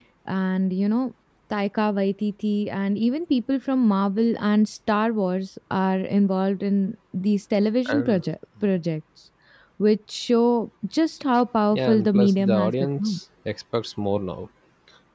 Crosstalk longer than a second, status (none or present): present